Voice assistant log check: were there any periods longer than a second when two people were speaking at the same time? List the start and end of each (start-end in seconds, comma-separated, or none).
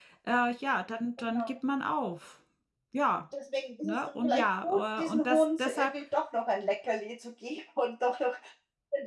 3.8-5.9